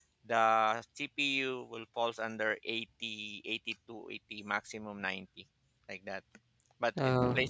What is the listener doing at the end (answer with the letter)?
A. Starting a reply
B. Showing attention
B